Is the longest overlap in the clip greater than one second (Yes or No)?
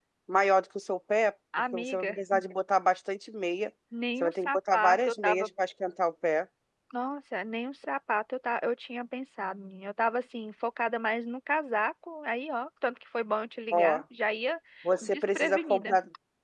Yes